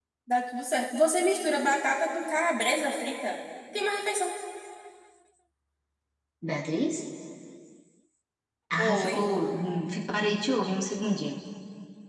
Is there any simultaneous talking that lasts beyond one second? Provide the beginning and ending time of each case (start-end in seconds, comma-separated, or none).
none